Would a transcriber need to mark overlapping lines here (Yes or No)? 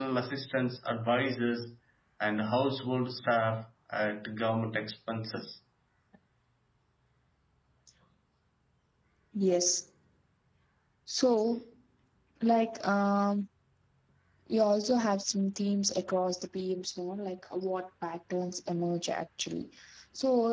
No